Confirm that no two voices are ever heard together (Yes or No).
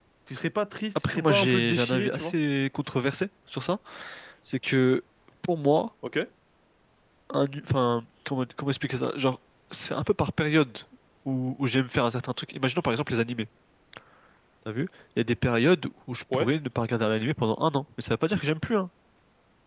No